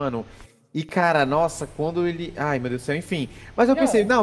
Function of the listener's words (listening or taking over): listening